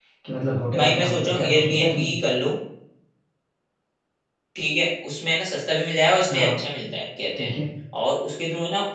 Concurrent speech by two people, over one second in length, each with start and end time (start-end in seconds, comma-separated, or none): 0.8-2.1